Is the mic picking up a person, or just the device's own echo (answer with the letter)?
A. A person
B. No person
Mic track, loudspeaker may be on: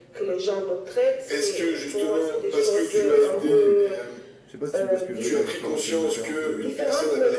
A